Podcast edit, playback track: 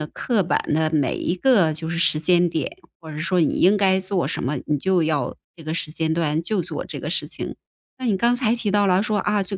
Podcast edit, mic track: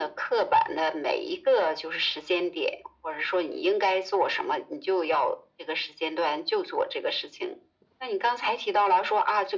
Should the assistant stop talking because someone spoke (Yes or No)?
No